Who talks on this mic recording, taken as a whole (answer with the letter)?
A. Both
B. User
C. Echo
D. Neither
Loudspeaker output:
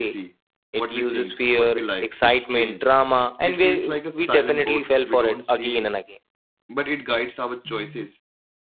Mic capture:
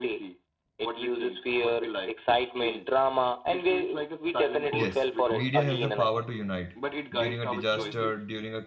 A